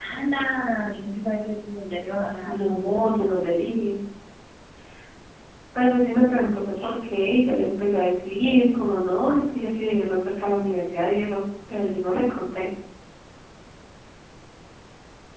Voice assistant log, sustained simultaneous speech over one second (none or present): none